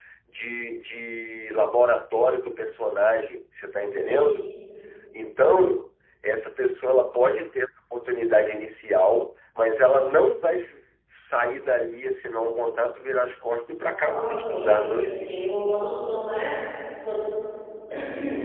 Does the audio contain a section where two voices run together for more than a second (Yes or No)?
Yes